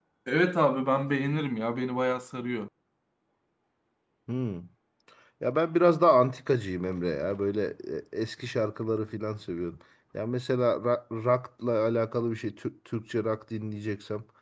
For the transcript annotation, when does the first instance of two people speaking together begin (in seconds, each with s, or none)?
none